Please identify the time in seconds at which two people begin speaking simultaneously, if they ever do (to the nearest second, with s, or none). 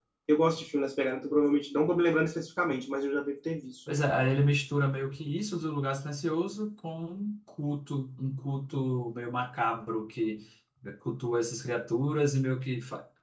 none